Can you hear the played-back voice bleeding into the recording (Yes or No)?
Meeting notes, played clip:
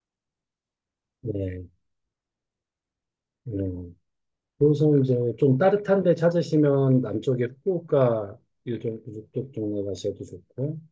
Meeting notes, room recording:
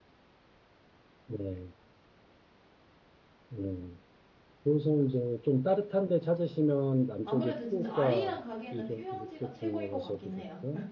Yes